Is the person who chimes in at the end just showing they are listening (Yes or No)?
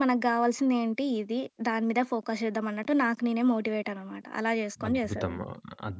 No